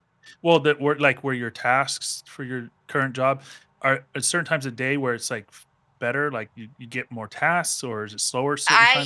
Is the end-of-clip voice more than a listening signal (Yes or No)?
Yes